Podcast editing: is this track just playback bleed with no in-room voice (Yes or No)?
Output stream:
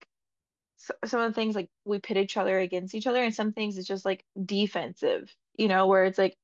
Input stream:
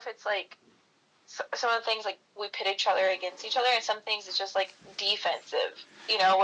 Yes